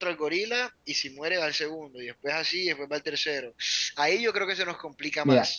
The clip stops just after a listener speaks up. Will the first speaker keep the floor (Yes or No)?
No